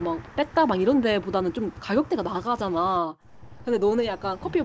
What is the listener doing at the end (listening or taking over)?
listening